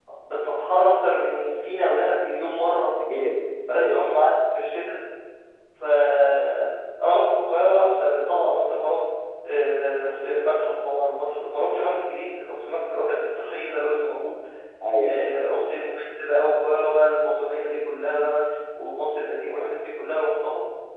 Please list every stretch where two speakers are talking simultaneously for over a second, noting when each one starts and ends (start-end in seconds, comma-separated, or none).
none